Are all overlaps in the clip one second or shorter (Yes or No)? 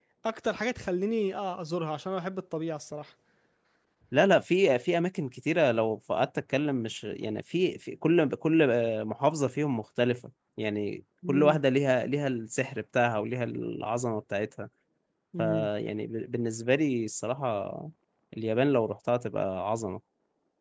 Yes